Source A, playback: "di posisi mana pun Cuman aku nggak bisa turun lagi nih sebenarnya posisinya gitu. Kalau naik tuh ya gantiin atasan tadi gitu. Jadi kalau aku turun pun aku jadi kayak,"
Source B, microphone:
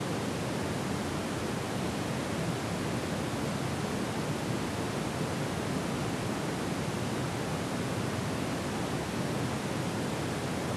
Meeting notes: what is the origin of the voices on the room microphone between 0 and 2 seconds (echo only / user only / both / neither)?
neither